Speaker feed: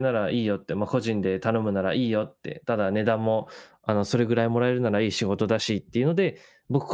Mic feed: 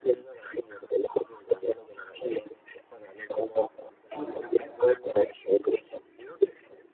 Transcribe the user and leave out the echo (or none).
そうですよね。